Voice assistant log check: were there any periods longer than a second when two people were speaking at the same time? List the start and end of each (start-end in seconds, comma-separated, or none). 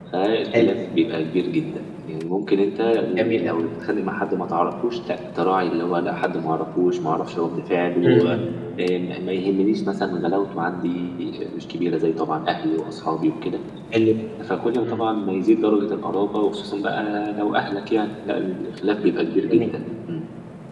none